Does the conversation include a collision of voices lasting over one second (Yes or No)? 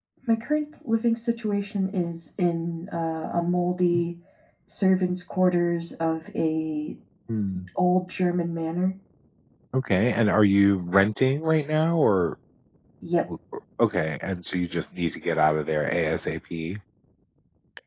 No